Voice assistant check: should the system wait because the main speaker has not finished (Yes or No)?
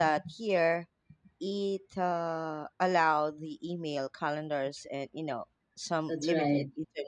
No